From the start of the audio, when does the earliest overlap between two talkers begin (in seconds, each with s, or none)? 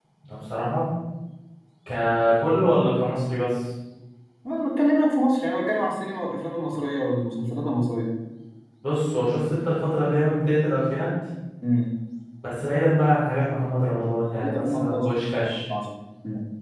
14.3 s